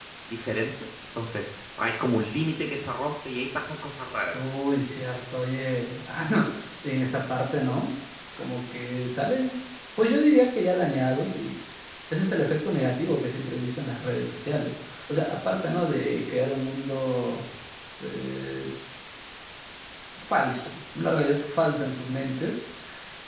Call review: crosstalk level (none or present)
none